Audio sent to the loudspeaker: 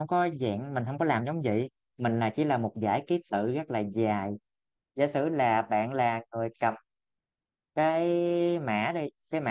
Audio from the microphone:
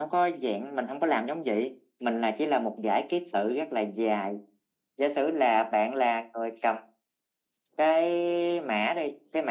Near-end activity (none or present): none